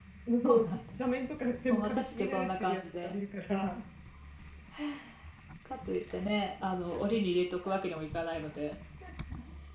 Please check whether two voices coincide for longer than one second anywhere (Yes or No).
Yes